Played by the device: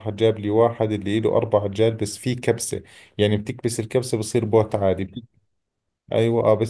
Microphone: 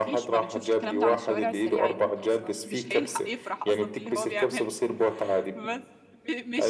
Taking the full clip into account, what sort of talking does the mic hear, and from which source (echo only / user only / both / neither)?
both